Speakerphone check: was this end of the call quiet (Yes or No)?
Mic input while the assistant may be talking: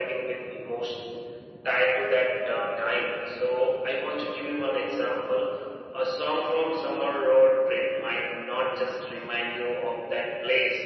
Yes